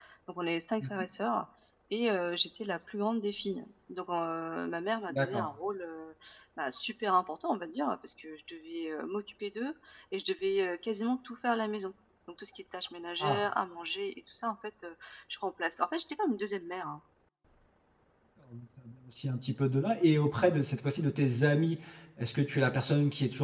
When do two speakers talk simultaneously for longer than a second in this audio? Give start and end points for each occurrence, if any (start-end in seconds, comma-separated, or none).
none